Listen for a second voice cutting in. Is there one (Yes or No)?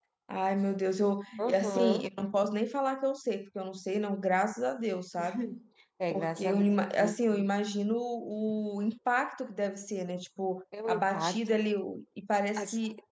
Yes